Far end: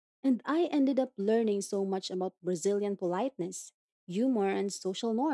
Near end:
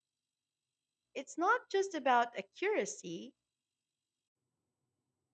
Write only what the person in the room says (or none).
It's not just about accuracy,